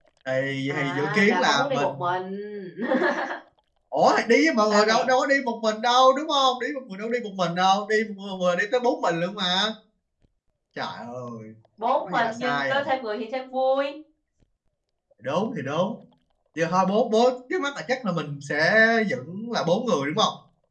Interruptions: present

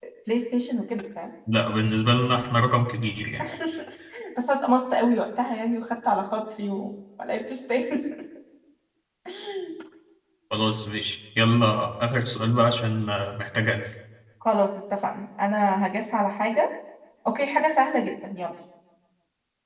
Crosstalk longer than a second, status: none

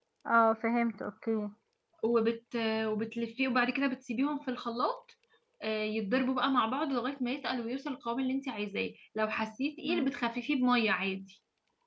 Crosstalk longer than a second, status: none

